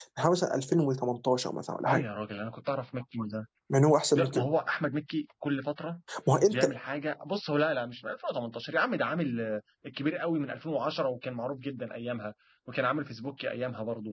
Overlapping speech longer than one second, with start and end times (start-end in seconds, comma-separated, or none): none